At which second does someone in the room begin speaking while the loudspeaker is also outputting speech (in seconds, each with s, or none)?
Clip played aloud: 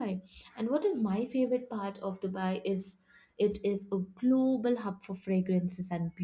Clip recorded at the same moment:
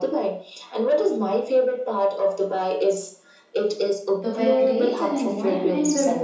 4.2 s